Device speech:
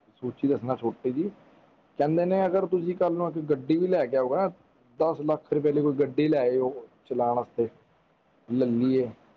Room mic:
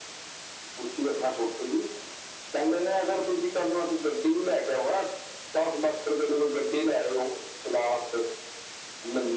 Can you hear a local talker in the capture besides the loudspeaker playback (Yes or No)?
No